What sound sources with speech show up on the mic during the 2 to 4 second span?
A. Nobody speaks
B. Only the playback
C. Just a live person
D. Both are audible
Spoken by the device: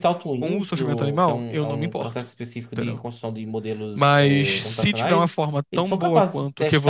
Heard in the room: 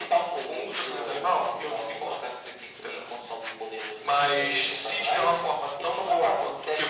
B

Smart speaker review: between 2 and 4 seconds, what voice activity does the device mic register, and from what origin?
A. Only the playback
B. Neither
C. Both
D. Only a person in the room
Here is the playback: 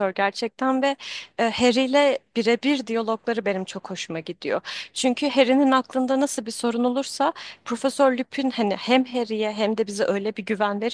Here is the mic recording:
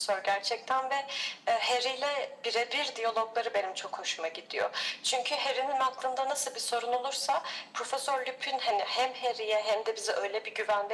A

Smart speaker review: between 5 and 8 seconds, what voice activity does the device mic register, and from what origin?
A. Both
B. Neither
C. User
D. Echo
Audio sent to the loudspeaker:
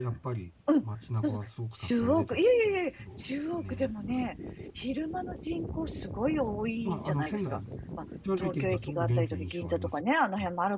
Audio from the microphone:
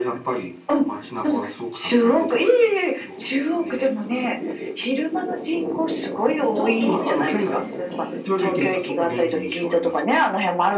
A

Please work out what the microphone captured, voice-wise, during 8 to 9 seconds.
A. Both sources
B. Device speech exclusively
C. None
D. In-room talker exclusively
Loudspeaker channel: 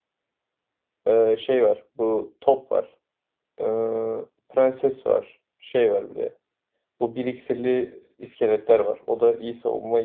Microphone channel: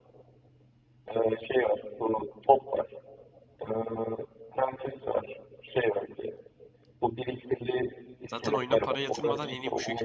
A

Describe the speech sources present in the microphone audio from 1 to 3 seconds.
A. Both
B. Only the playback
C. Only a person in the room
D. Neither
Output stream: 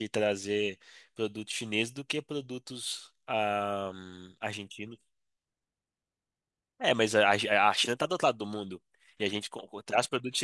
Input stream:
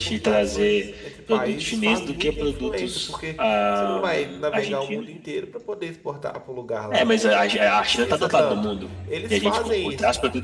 A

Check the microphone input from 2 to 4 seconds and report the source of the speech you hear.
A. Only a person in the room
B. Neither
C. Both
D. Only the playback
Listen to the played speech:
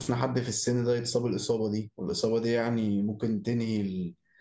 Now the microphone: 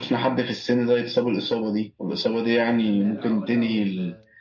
C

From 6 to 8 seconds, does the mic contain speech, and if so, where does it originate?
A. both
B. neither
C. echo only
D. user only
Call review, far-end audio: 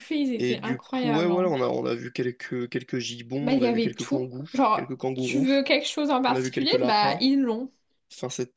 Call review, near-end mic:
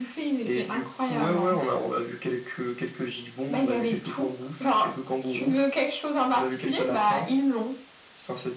C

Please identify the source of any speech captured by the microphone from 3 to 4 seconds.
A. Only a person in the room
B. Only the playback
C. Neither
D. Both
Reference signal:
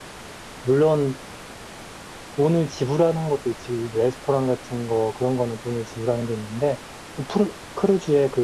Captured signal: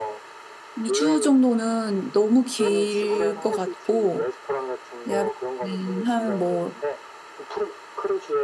D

